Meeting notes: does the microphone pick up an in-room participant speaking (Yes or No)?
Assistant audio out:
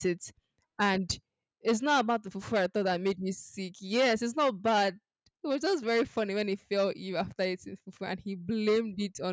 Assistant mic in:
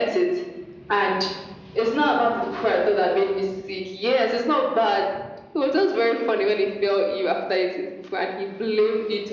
No